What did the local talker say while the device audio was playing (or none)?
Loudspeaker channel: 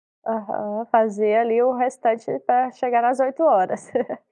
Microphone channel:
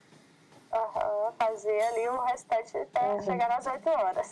Aham.